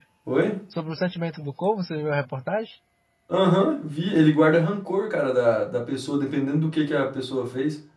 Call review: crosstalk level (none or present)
none